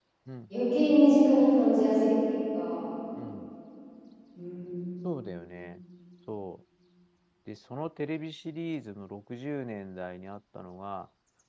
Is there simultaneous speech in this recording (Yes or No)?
No